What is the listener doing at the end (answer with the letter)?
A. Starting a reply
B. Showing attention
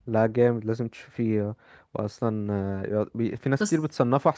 B